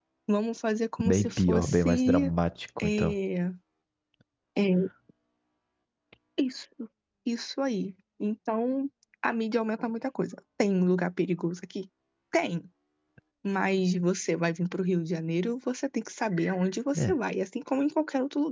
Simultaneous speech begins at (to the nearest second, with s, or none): 1 s